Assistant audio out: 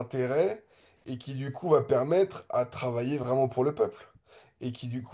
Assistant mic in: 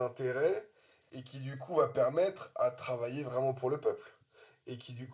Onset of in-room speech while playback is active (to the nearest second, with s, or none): none